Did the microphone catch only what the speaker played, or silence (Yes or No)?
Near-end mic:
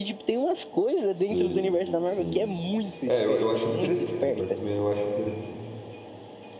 No